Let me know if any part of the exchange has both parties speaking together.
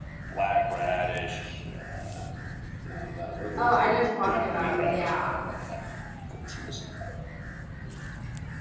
Yes, from 3.6 s

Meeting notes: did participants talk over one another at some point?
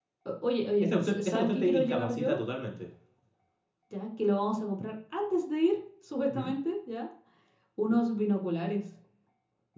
Yes, from 0.8 s

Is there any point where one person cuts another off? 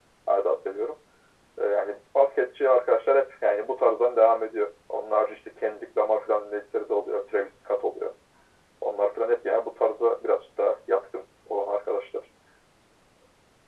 No

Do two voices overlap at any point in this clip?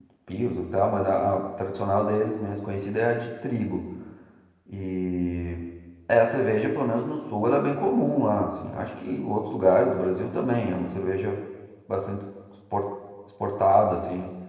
No

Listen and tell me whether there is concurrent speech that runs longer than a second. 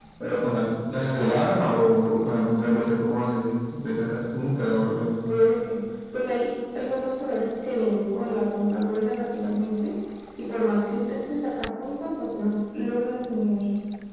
No

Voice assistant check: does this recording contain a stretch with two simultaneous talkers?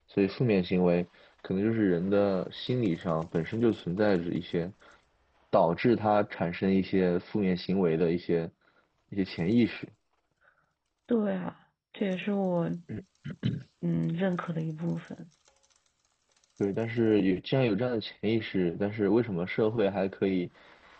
No

